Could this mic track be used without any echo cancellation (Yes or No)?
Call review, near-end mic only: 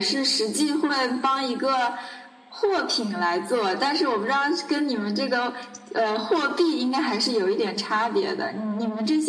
No